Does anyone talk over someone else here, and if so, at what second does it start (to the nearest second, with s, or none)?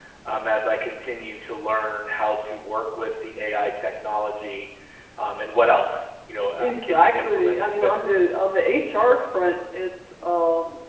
7 s